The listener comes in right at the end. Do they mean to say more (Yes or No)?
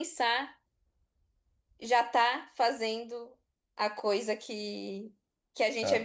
No